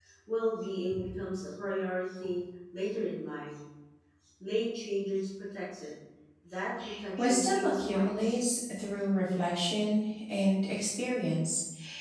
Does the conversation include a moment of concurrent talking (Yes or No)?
Yes